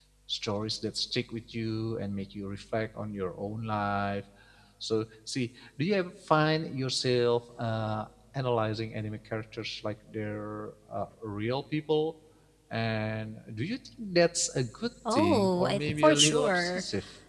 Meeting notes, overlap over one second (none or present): present